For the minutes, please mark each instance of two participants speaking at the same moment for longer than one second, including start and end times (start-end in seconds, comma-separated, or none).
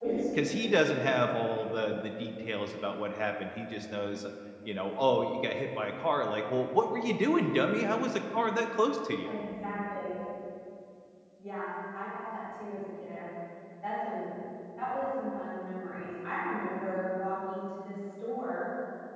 none